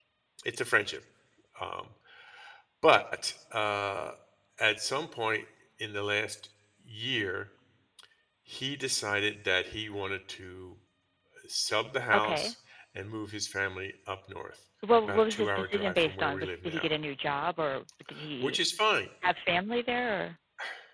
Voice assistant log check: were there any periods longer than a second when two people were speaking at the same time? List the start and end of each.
15.0-16.9

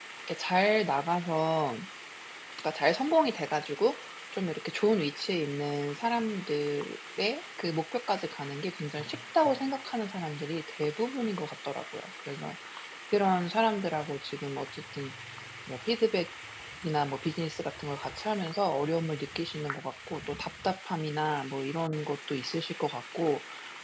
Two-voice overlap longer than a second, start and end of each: none

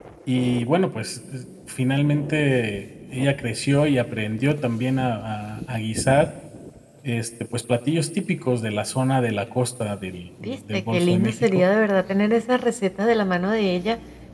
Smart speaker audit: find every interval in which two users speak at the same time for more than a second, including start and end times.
10.4-11.6

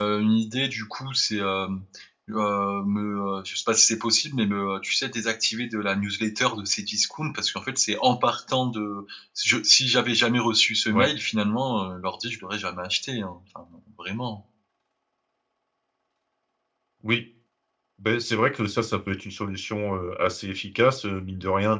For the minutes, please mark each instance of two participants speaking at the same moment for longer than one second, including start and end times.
none

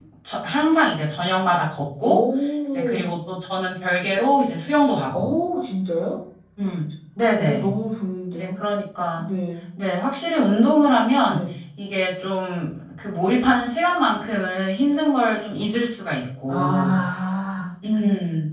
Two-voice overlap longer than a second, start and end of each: none

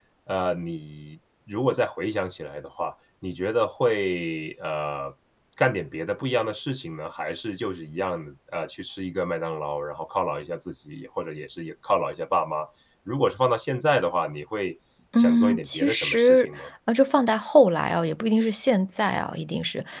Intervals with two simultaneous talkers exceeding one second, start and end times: 15.2-16.5

